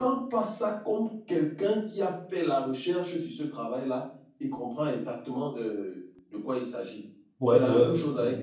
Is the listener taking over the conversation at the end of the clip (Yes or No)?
Yes